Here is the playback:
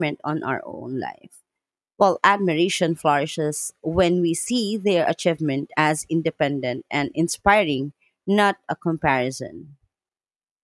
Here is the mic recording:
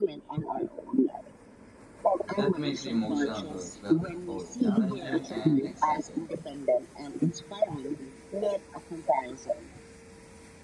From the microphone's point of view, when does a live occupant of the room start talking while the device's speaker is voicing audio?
2.3 s

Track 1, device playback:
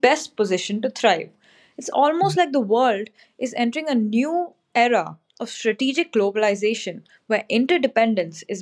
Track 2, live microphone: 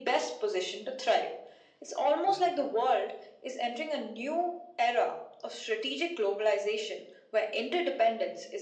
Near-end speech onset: none

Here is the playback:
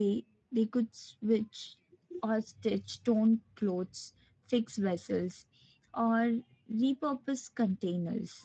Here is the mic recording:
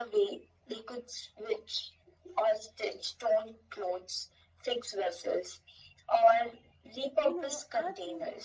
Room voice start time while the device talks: 7.1 s

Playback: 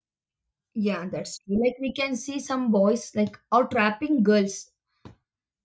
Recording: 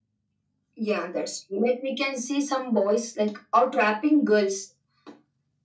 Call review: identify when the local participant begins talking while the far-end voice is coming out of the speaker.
none

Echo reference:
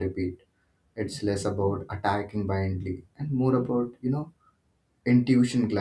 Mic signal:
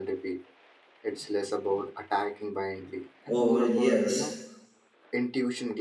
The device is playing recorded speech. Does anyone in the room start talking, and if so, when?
3.3 s

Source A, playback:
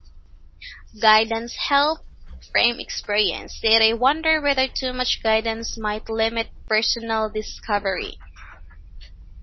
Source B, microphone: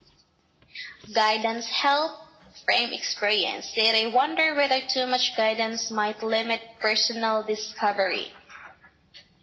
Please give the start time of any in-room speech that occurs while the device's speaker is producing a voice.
none

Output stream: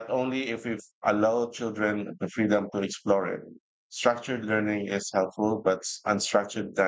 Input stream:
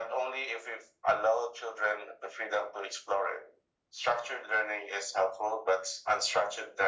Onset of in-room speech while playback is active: none

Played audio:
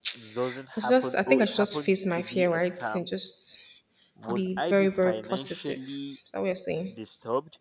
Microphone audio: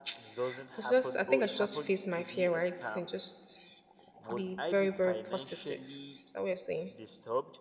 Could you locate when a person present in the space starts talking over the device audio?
none

